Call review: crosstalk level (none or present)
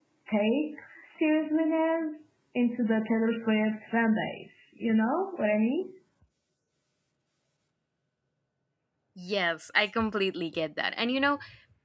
none